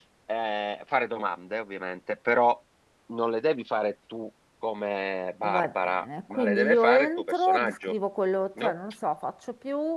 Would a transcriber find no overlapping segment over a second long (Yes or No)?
No